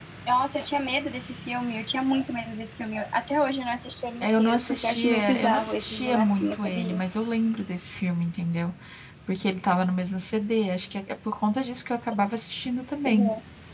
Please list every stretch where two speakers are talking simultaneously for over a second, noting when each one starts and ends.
4.2-7.0

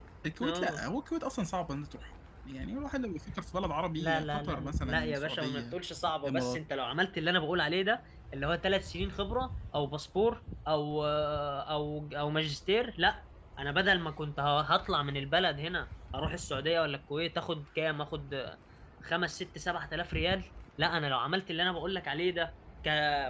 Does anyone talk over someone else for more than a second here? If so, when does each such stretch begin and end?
4.0-5.8

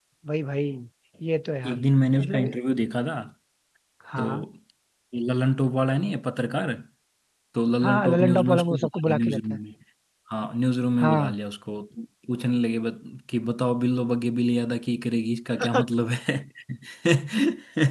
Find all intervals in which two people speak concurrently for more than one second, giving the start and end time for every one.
7.8-9.6

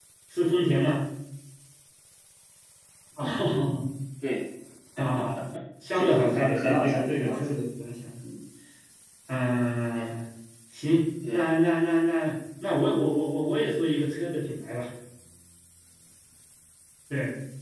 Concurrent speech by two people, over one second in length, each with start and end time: 5.9-7.5

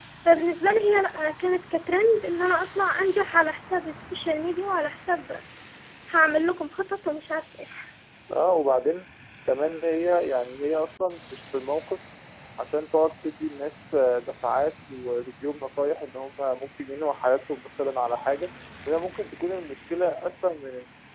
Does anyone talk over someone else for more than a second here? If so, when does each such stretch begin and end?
none

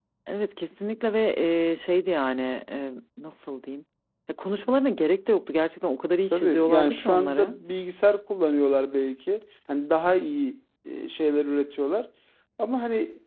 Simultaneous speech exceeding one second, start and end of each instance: 6.3-7.5

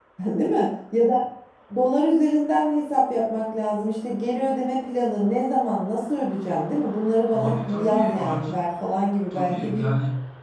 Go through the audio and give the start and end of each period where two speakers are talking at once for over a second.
7.3-8.5

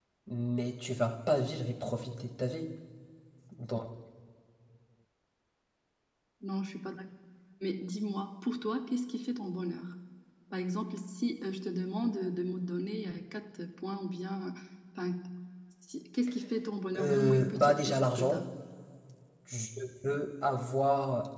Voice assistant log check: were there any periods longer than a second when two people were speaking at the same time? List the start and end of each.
17.0-18.4

